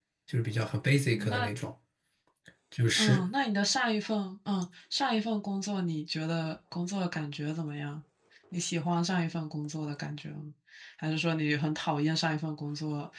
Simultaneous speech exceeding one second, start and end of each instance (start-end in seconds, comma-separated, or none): none